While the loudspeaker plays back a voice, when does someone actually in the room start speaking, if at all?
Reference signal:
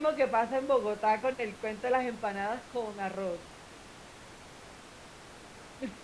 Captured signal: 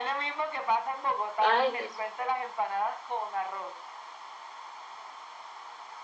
1.4 s

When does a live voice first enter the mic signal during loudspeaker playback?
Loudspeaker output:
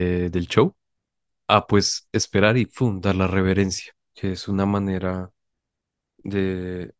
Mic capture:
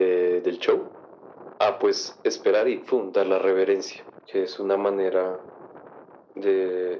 none

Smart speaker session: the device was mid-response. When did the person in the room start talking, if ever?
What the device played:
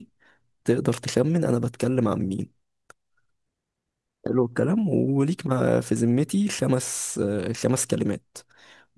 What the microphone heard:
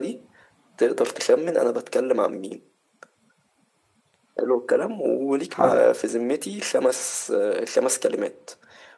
5.5 s

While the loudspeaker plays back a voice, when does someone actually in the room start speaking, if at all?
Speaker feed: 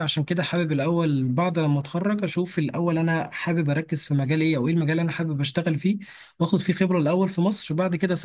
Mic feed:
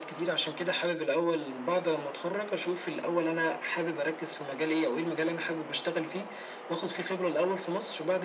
none

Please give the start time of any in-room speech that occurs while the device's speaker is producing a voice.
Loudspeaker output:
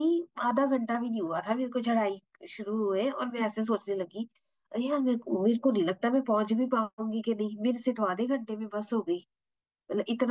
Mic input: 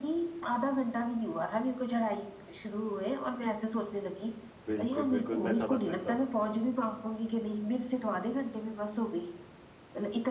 4.7 s

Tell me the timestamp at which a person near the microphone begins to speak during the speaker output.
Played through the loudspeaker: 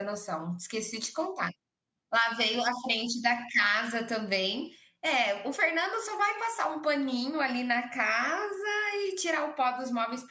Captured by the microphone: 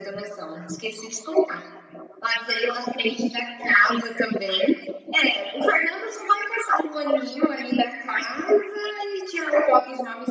none

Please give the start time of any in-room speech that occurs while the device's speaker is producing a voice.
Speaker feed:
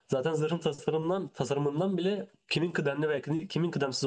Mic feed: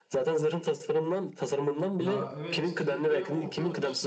2.0 s

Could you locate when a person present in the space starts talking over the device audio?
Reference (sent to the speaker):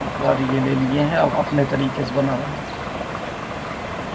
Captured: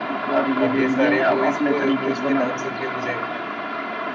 0.7 s

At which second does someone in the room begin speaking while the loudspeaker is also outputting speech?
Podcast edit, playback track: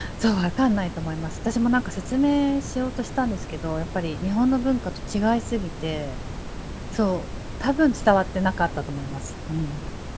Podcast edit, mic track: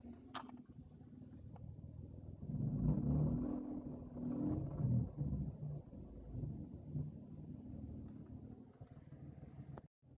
none

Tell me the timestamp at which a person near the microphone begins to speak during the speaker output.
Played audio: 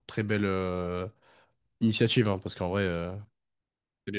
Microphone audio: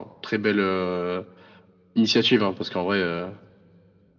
none

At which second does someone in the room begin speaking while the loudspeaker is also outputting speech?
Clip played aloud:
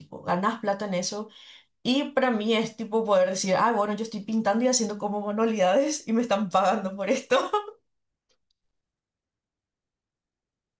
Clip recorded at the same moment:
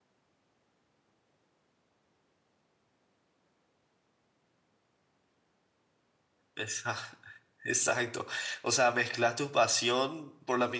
6.5 s

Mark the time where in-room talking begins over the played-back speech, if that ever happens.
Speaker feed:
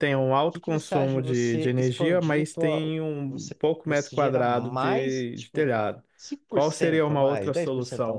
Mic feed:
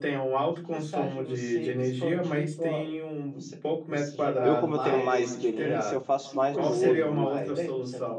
4.4 s

